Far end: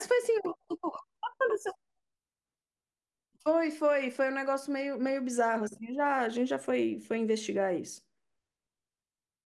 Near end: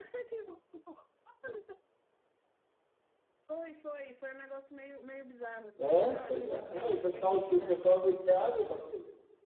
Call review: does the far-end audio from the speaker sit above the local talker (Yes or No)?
No